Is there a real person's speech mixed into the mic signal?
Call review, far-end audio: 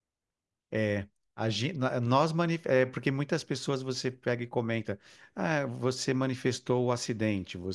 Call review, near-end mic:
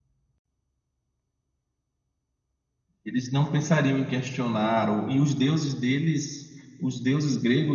Yes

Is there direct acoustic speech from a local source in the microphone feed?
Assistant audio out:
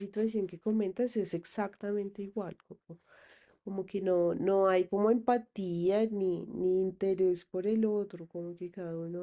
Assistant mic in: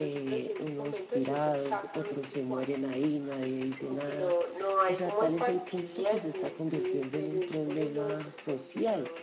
Yes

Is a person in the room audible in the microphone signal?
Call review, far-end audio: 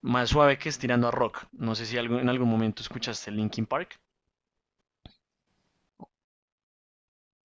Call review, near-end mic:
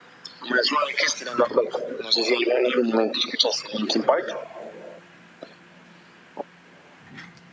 No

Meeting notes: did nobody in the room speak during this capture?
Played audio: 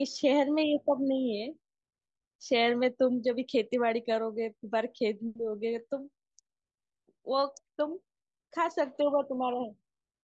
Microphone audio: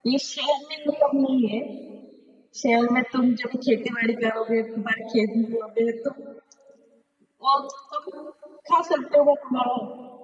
Yes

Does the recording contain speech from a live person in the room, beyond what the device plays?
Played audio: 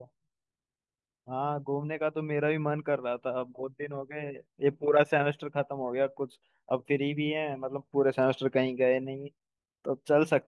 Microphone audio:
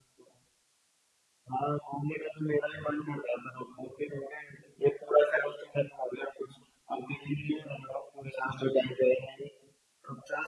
No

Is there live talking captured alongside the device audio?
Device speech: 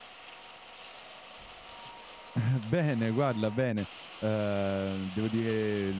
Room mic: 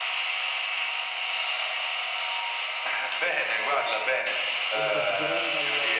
Yes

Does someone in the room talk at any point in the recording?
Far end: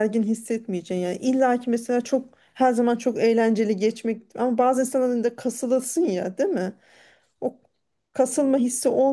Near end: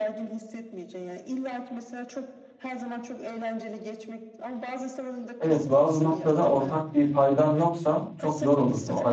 Yes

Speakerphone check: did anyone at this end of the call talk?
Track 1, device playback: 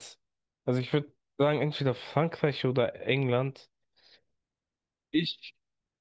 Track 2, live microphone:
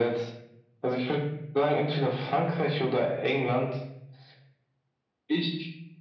No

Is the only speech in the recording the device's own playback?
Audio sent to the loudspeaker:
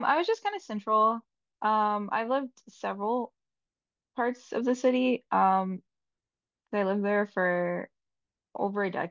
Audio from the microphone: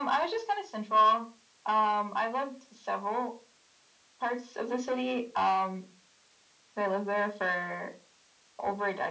Yes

